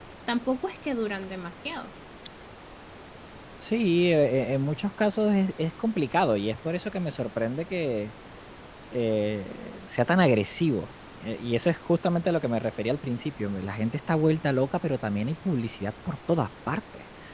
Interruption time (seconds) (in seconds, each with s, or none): none